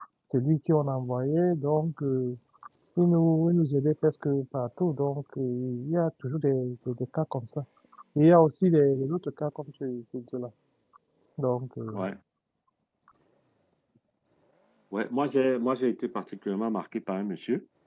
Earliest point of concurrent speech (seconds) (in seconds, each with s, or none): none